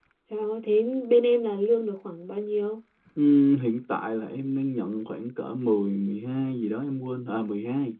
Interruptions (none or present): none